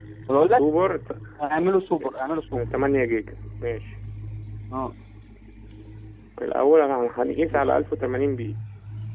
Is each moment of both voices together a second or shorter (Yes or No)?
Yes